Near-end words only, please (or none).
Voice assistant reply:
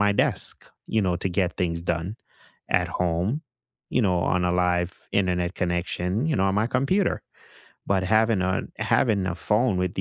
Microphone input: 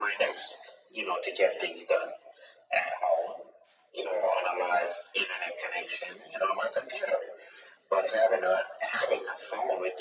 none